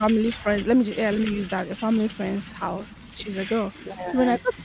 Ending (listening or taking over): listening